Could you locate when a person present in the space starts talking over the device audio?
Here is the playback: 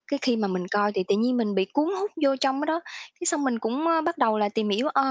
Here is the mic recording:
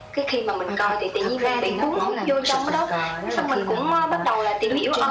0.7 s

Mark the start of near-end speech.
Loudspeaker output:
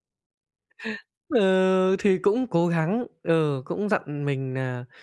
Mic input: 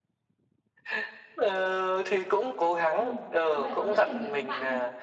2.9 s

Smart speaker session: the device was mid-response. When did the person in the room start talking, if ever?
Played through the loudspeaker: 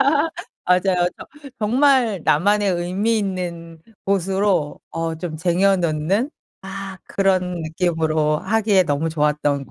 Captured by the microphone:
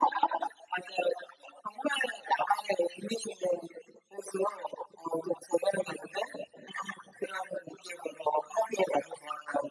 none

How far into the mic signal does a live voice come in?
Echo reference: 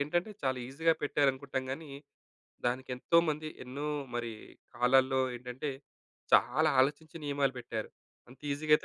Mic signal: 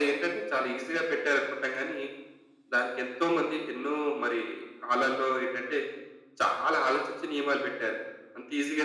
none

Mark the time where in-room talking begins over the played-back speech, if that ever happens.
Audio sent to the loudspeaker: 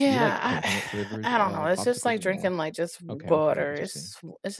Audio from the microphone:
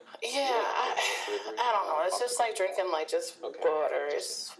none

